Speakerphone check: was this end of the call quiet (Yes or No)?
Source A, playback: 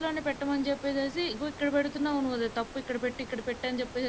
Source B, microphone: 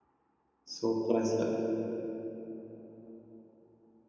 No